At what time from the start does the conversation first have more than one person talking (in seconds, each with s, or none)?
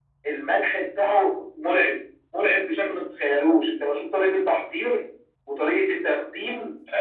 none